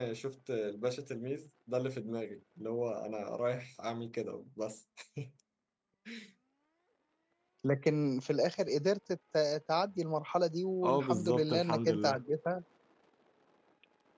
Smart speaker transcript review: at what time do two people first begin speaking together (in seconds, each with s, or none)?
10.8 s